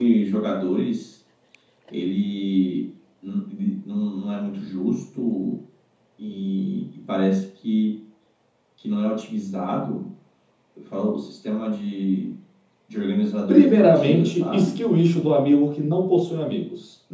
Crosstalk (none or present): present